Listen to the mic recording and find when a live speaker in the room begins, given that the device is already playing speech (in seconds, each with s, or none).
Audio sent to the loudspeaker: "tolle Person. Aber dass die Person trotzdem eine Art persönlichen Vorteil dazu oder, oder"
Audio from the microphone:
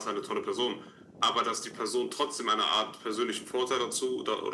none